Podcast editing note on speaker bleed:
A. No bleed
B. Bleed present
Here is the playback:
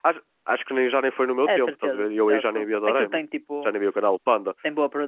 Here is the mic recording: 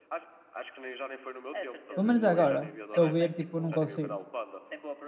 B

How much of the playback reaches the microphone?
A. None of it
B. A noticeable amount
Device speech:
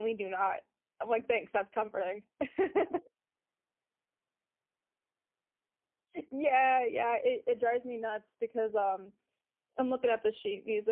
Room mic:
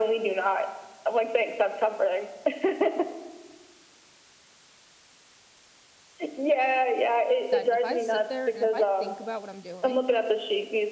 B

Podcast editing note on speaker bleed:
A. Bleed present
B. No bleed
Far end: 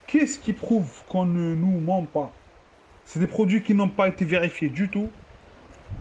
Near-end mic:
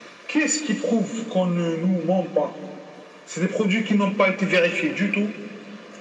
A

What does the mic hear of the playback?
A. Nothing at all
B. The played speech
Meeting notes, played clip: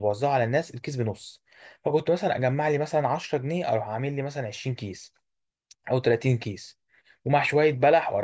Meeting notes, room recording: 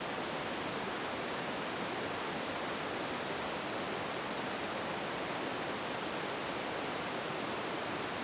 A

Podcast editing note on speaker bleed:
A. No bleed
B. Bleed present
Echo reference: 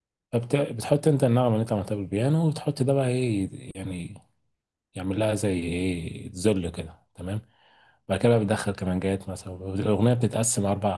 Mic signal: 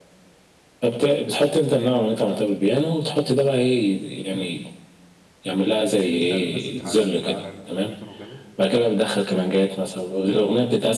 B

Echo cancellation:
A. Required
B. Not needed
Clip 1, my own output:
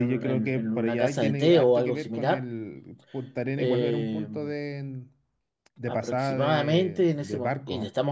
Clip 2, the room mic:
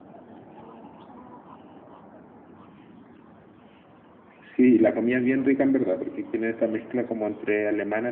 B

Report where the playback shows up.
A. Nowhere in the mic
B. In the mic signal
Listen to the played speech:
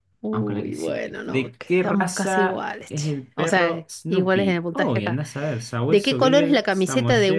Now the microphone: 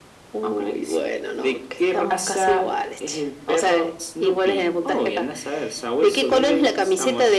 B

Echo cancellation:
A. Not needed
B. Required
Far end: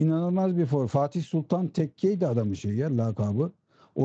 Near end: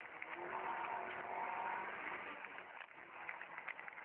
A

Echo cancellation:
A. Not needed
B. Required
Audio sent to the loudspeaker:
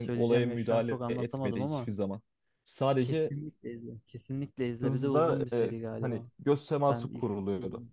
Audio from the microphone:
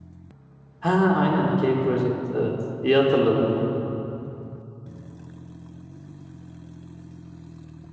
A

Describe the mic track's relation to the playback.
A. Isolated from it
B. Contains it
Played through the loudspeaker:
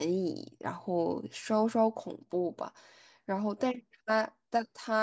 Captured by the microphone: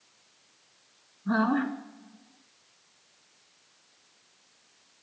A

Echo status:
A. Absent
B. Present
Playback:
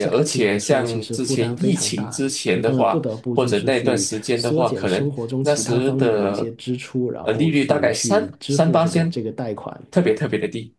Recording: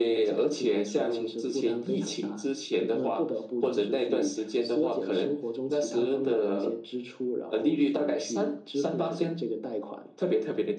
B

